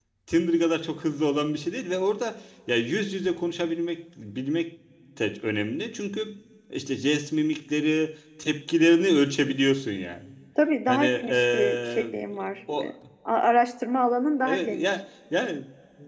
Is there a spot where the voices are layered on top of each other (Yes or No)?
Yes